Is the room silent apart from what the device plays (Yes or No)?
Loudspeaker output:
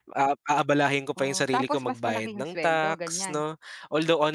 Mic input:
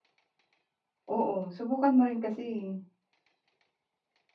No